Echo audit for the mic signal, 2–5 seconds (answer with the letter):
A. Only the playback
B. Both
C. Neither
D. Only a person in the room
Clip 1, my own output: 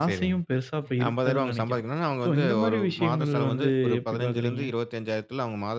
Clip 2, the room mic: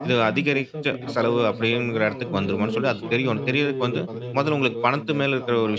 B